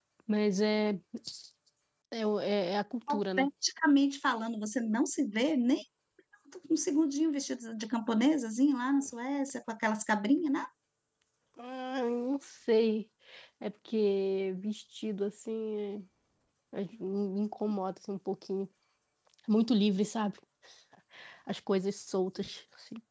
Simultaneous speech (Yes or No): No